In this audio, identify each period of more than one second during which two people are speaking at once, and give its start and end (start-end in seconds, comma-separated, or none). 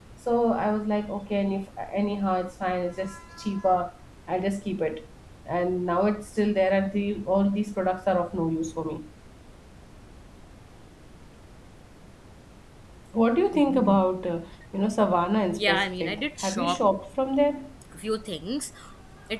15.5-16.8